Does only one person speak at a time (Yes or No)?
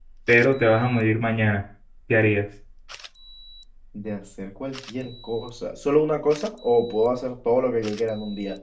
Yes